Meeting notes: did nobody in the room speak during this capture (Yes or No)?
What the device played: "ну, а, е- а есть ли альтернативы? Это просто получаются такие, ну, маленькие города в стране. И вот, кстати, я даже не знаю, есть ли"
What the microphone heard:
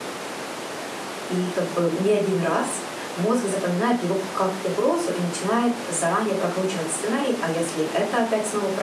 No